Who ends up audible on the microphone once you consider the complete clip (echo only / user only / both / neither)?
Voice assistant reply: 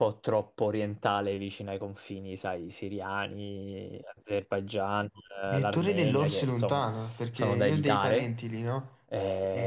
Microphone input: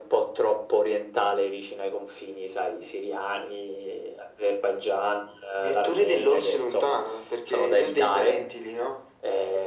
echo only